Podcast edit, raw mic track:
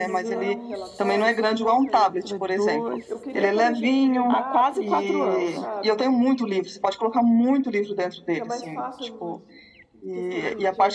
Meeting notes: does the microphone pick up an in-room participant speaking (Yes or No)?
Yes